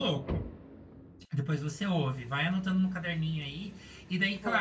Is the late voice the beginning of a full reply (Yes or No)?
No